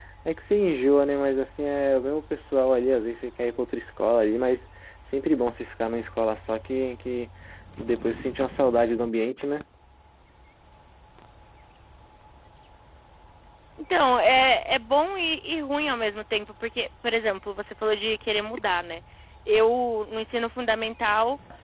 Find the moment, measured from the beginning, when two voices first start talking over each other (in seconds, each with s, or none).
none